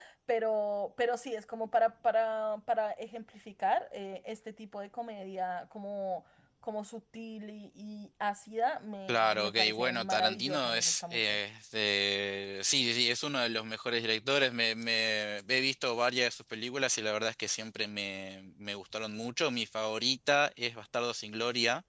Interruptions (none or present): present